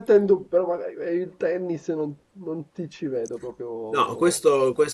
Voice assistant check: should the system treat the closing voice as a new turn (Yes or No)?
Yes